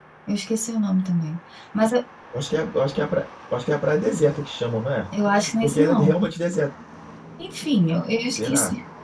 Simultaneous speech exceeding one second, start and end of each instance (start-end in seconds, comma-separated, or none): none